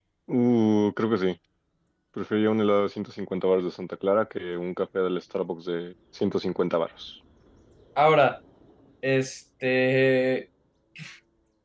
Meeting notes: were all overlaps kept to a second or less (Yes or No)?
Yes